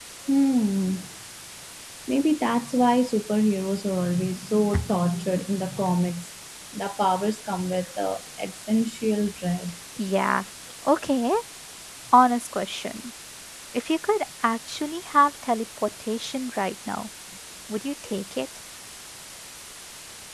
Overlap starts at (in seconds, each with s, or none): none